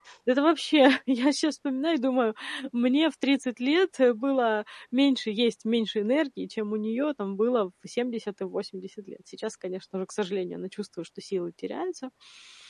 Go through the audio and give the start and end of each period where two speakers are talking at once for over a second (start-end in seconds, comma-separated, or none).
none